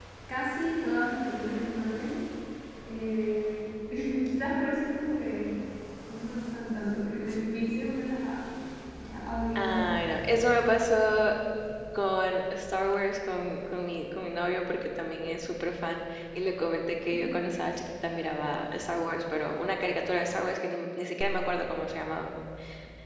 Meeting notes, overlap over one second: none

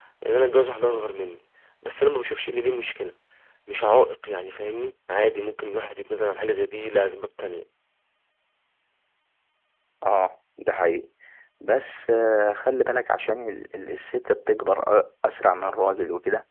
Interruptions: none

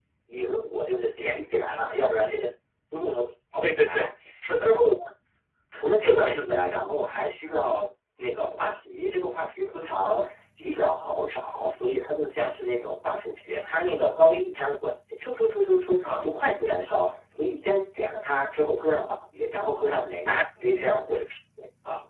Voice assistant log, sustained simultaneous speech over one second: none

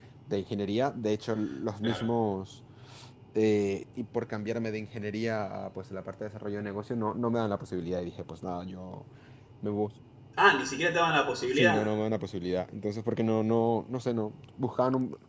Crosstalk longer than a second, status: none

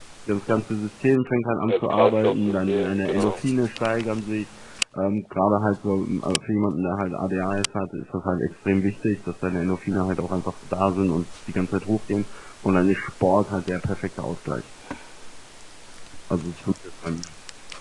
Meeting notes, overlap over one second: present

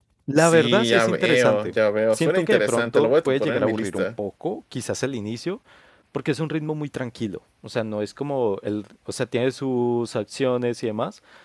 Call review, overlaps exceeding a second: present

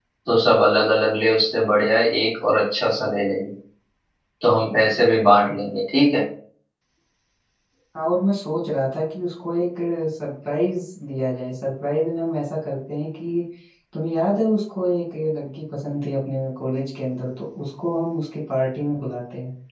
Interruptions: none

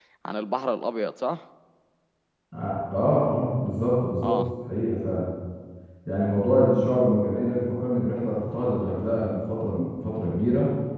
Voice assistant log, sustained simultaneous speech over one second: none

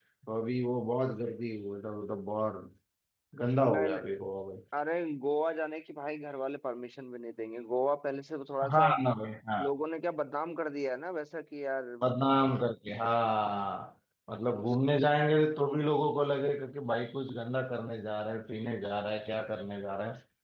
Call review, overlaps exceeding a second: none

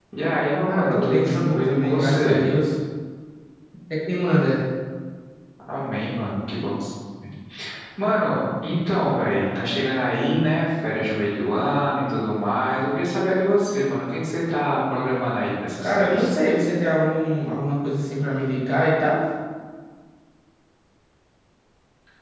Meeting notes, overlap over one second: present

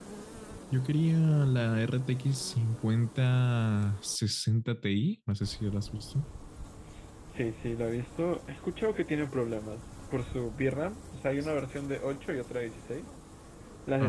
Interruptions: none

